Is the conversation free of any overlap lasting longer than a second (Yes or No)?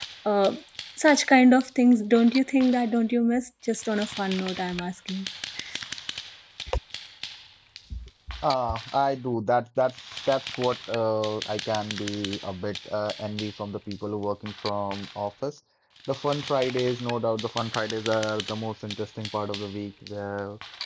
Yes